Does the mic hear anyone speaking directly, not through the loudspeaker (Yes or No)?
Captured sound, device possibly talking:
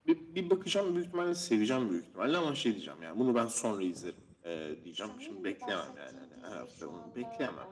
Yes